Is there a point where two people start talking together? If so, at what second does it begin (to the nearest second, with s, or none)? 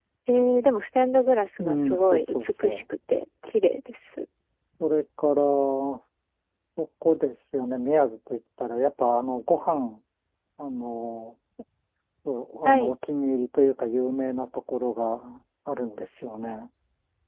2 s